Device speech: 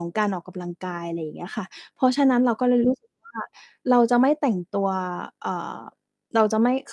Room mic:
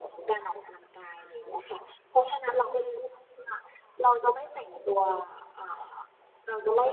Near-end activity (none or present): none